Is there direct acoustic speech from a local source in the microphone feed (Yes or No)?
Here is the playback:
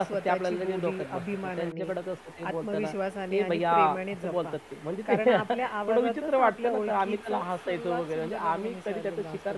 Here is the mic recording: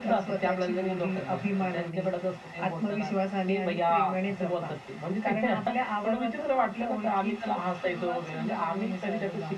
No